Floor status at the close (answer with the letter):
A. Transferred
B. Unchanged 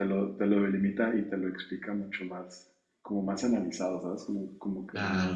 A